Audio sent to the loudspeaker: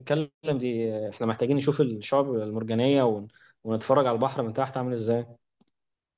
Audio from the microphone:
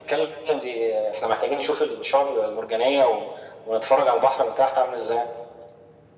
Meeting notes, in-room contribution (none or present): none